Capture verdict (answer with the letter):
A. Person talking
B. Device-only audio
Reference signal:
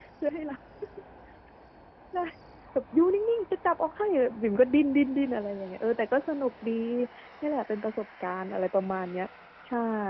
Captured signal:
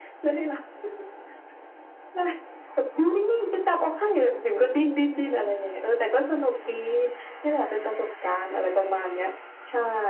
B